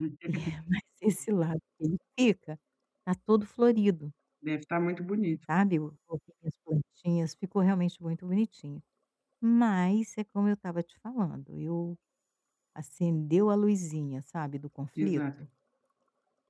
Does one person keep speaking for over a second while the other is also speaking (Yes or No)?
No